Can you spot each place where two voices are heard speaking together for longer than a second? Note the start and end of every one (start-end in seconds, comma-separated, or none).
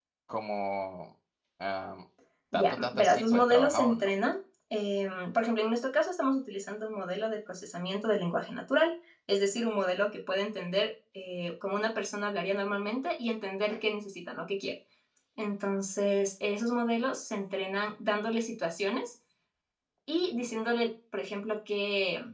2.5-4.1